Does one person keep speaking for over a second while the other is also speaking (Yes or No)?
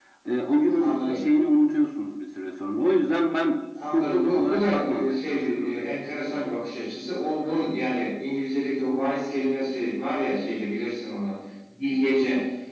Yes